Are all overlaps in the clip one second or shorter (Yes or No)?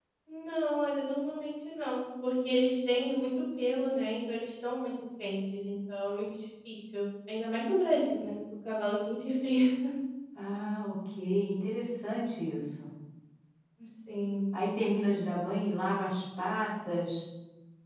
Yes